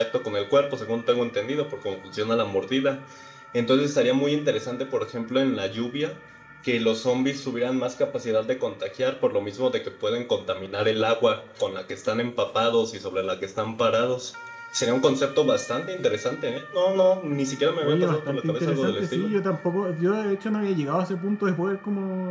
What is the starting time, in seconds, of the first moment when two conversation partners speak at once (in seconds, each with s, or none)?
17.8 s